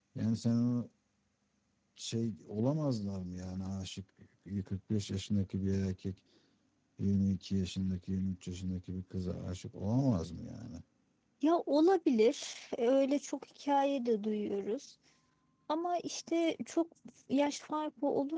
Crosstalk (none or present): none